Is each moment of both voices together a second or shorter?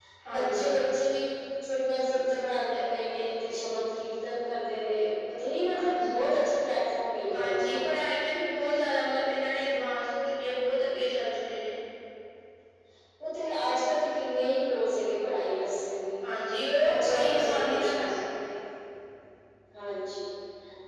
No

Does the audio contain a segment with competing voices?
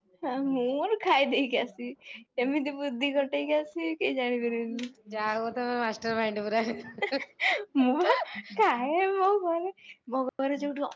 No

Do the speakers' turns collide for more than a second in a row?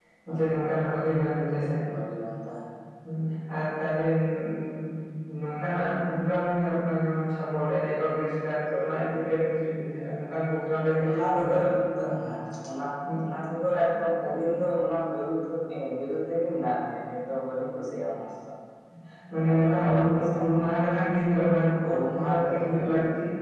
Yes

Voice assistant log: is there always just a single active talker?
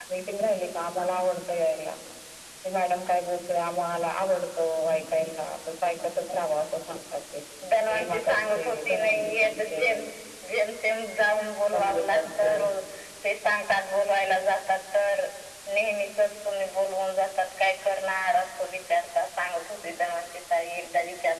No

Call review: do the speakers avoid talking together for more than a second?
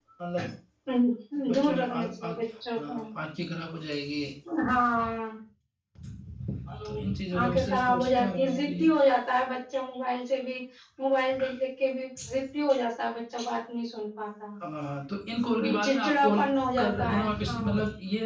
No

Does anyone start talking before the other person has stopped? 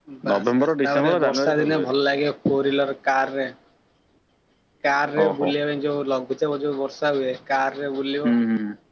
Yes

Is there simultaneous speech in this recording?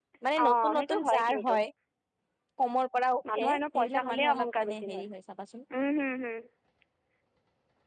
Yes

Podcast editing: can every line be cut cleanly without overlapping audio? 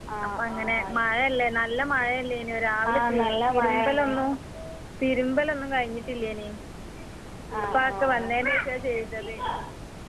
No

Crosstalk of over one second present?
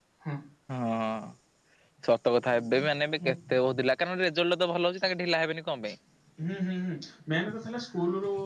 No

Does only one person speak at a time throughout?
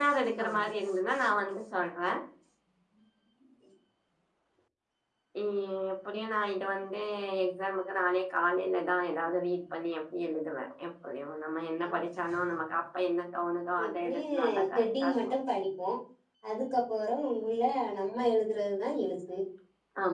No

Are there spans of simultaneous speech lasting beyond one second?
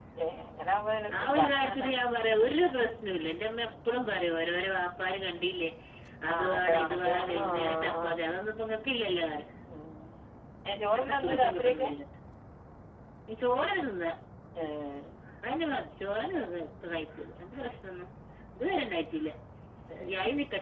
Yes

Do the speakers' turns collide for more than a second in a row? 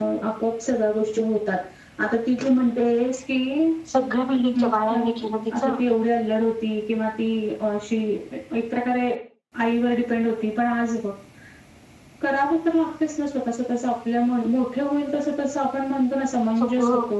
No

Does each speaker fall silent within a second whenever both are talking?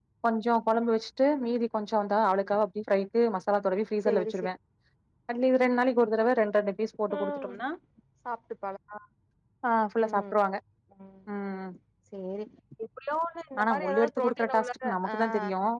No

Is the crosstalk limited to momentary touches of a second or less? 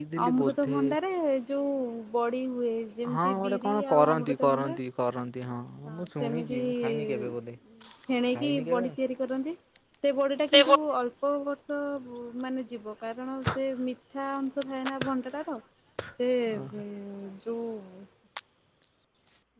No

